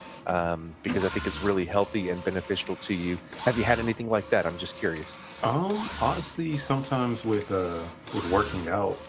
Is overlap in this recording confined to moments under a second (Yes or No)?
Yes